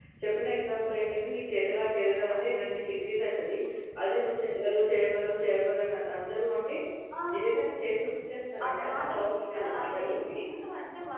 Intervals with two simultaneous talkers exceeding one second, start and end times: 8.7-10.2

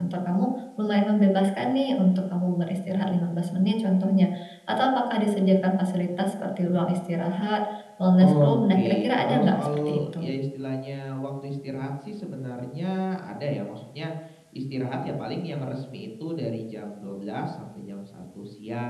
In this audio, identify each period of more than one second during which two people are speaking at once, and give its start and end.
8.2-10.2

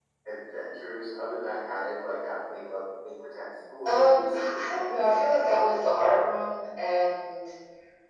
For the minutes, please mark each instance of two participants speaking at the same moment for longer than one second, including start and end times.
3.9-5.8

